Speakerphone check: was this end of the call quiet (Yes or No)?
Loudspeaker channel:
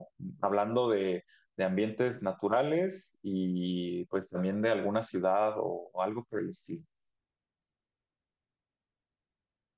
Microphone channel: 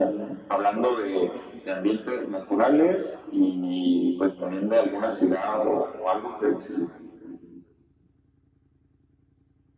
Yes